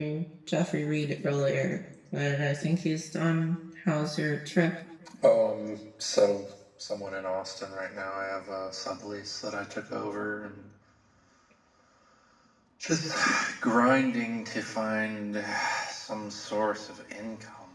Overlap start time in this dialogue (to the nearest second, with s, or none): none